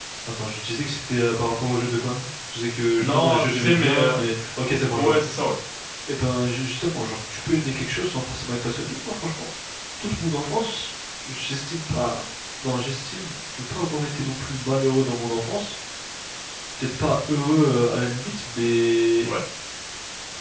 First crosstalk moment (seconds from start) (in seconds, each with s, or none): 3.0 s